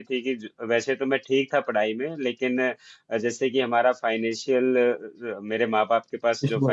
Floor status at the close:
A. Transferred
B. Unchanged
B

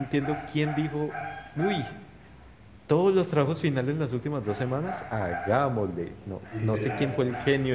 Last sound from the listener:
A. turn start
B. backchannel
B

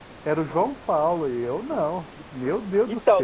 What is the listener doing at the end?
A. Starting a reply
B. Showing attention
A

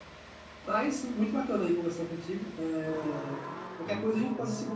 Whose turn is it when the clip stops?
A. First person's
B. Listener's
A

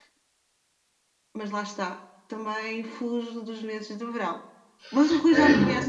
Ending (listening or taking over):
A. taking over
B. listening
A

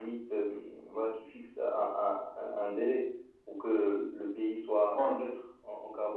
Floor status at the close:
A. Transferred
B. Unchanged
B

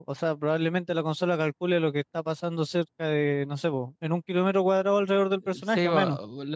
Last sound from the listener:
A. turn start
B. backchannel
A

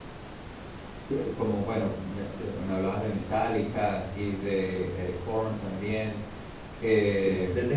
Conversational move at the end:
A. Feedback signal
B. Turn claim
B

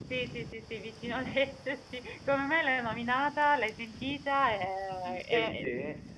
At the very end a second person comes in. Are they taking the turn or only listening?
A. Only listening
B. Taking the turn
B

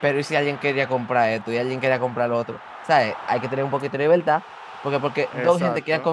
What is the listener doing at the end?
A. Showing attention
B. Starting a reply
A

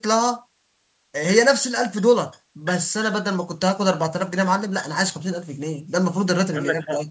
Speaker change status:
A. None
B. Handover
B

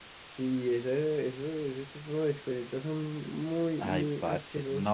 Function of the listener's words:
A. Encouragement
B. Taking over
B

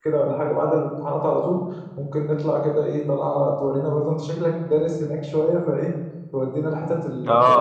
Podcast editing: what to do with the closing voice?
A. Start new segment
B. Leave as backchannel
A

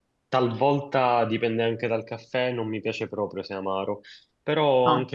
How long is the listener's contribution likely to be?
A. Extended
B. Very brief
B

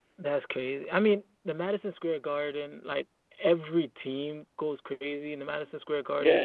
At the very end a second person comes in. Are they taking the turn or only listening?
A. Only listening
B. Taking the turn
B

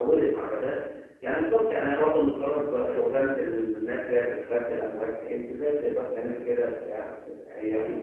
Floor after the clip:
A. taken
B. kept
A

